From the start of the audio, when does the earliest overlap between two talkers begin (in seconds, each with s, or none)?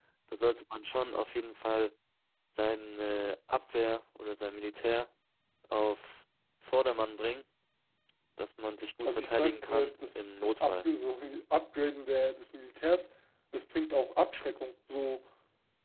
9.0 s